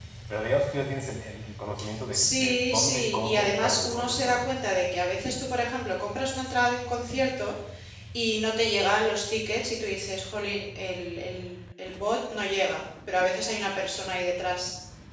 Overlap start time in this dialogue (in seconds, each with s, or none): 2.1 s